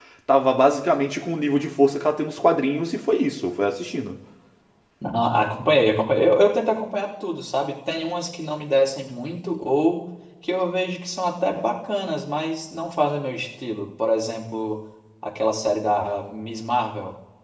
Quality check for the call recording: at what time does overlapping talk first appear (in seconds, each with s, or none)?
none